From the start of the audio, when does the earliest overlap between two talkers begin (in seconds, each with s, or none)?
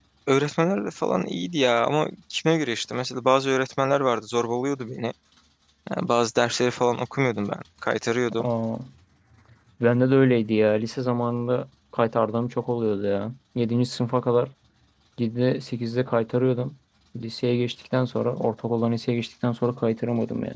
none